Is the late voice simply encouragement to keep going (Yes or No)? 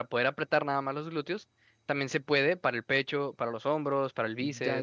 No